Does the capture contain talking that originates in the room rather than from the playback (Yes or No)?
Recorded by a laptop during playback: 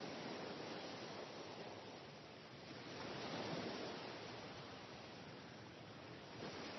No